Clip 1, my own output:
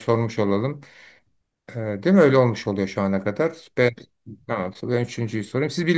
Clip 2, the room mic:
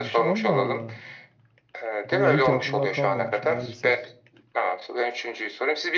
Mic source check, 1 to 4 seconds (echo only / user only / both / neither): both